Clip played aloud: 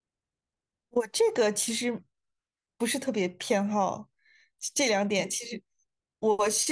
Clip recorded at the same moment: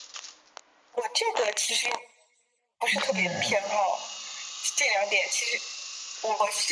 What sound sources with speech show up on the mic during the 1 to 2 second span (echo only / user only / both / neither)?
echo only